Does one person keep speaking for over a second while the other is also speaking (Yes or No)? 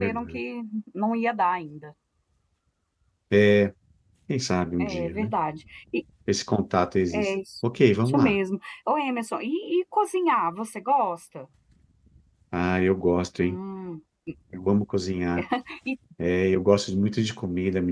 No